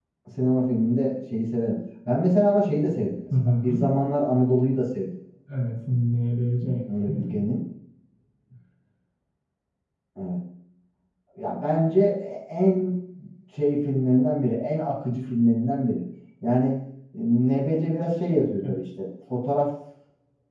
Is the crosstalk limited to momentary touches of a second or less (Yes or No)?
Yes